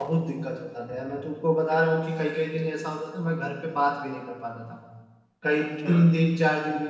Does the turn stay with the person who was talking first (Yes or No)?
Yes